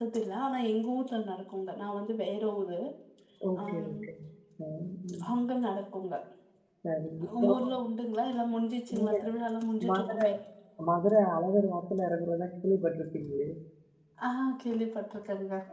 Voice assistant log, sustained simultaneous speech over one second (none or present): none